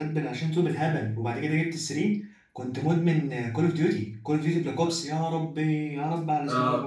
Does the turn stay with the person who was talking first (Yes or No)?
Yes